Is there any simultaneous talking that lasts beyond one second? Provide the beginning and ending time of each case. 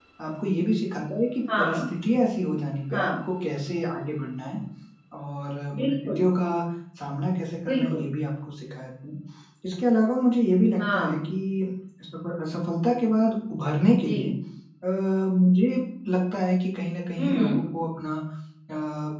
none

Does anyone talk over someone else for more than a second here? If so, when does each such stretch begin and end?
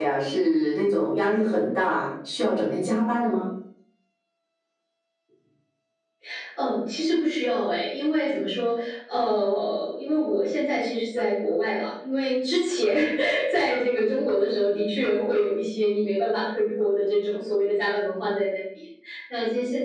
none

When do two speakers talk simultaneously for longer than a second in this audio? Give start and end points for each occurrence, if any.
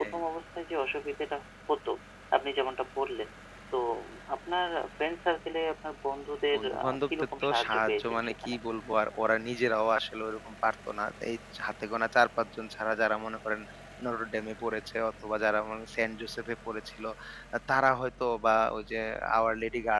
6.5-8.6

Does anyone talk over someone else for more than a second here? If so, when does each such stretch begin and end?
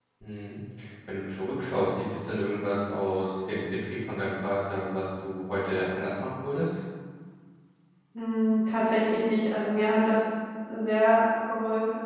none

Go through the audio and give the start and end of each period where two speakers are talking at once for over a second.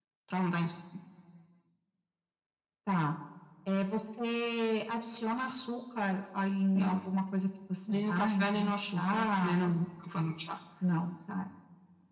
8.1-9.6

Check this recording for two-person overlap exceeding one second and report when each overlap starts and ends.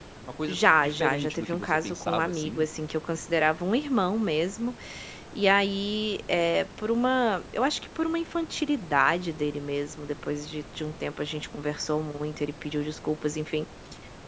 0.5-2.7

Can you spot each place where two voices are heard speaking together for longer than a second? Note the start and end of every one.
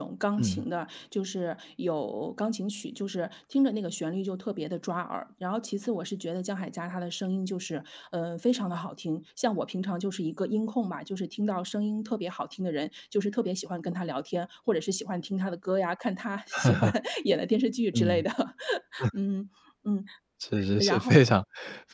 none

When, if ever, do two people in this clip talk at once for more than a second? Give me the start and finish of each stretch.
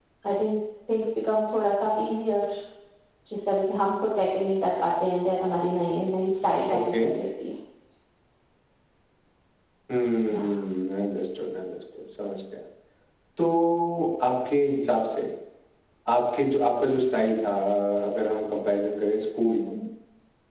none

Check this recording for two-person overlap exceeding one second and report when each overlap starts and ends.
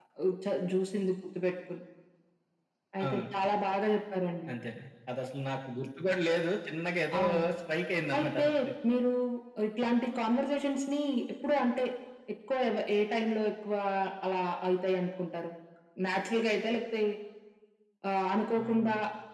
none

